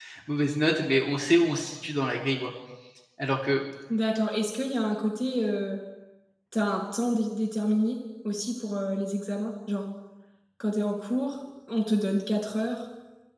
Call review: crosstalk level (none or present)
none